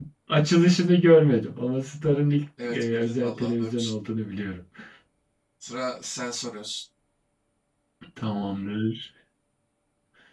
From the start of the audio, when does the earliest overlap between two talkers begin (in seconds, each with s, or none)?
2.6 s